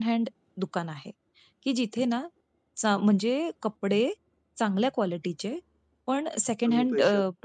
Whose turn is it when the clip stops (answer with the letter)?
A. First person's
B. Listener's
A